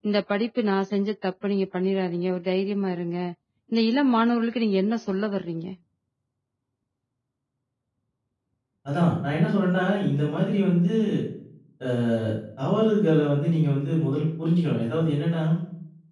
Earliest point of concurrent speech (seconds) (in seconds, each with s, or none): none